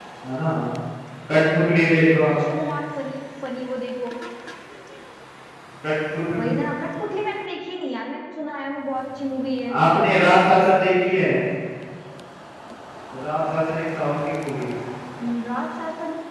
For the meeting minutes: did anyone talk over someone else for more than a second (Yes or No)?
No